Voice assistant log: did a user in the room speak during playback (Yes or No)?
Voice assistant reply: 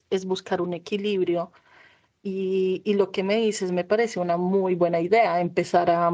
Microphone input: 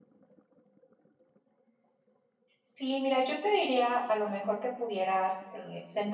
Yes